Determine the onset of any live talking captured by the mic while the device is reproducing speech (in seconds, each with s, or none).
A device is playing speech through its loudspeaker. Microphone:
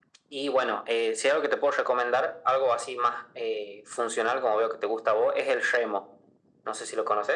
none